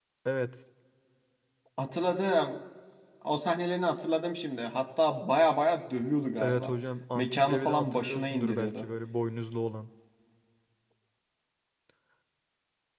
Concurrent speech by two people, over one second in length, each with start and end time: 7.2-8.9

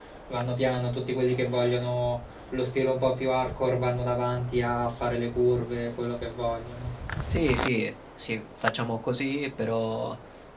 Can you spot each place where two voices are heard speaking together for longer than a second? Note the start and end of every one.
none

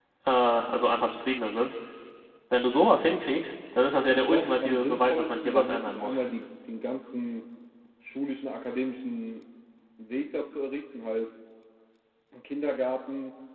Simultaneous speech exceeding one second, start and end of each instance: 4.1-6.2

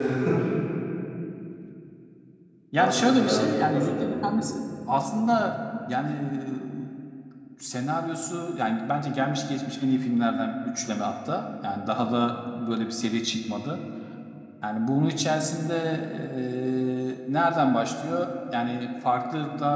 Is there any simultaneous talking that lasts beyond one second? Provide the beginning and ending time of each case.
2.8-4.2

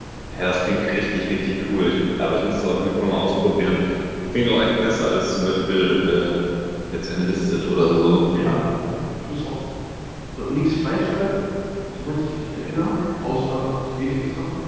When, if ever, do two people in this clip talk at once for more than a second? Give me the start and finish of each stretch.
none

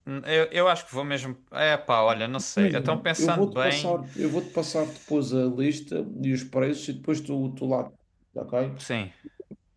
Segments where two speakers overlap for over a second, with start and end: 2.6-4.0

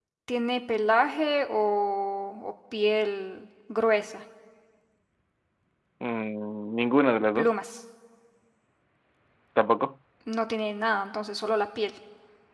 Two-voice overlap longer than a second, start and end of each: none

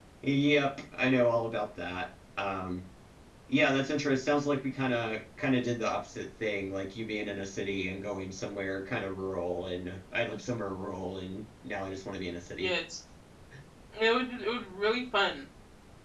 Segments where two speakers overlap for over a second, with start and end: none

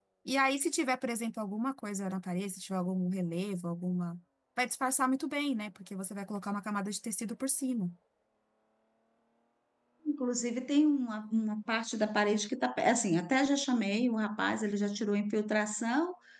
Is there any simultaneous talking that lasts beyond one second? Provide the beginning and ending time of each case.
none

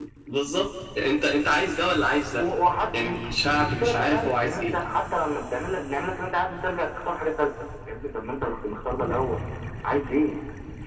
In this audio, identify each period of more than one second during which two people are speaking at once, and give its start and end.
3.0-4.7

